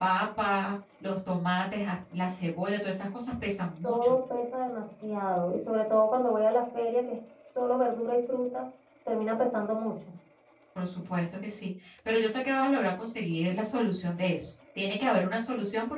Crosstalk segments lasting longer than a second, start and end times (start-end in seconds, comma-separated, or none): none